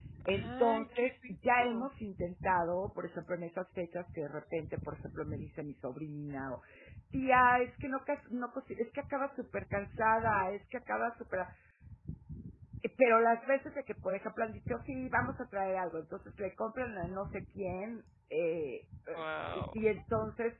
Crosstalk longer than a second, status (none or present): present